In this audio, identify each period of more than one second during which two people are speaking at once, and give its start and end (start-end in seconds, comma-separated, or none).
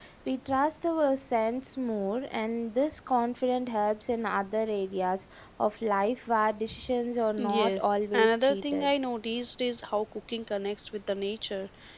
7.4-8.9